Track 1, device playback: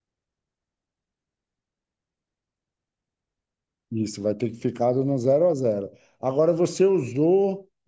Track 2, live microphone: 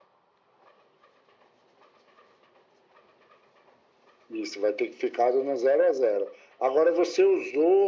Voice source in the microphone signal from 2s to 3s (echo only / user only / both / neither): neither